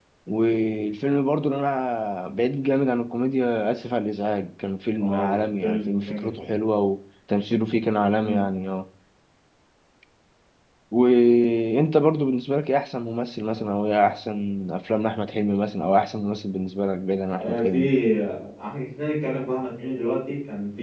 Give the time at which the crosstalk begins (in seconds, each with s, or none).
5.0 s